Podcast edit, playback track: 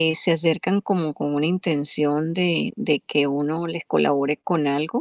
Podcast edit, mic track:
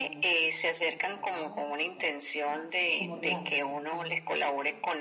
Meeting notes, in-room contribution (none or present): present